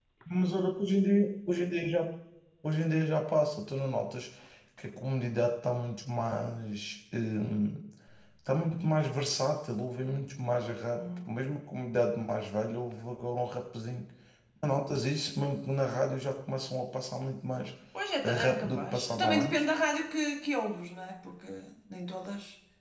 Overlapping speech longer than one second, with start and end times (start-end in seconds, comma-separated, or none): 18.2-19.6